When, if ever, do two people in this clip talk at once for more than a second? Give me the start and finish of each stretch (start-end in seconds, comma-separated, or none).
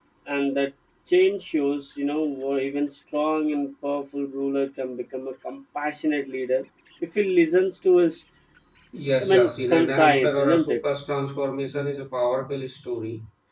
9.2-10.8